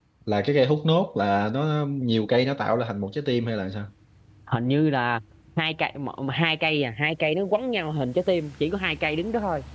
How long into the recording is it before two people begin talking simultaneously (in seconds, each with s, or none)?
none